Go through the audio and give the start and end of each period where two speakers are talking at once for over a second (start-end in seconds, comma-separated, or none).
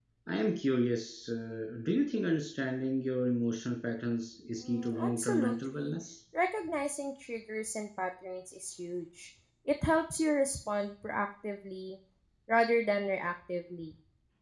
4.7-5.9